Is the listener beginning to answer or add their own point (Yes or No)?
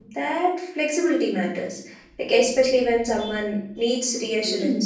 Yes